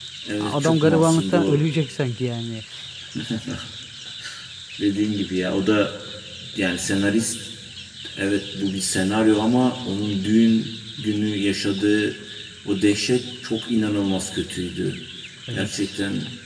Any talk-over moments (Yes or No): Yes